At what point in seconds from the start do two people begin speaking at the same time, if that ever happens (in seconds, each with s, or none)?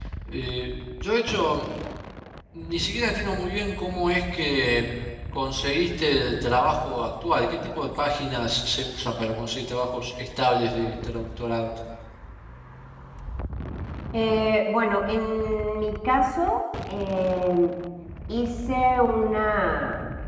none